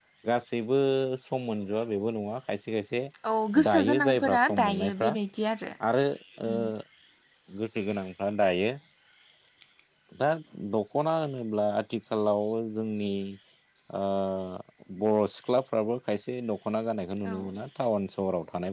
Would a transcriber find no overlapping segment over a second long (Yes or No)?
No